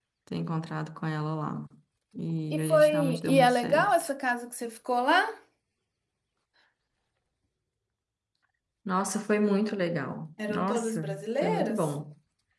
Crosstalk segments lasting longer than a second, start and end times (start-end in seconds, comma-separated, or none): 2.5-4.1, 10.5-11.9